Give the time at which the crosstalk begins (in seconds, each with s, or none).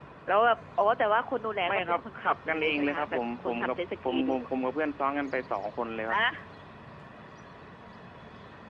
1.6 s